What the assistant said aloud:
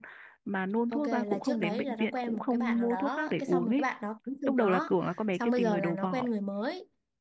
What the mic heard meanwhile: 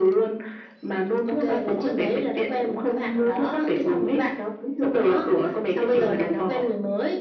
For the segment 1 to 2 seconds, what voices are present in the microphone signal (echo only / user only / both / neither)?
echo only